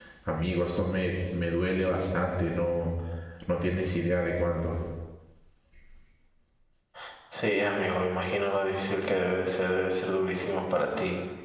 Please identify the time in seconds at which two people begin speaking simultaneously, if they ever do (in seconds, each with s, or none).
none